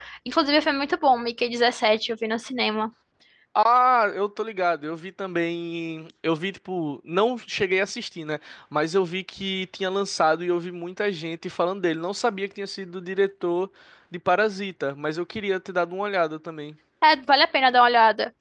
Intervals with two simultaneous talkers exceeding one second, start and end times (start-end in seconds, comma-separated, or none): none